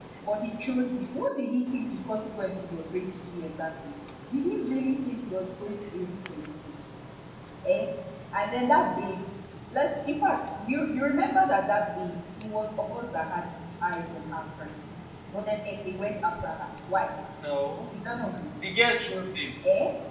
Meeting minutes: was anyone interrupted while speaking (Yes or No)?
No